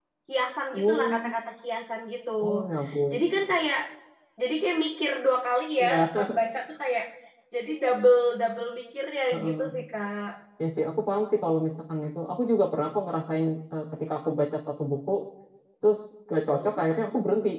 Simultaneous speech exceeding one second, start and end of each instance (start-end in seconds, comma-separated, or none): none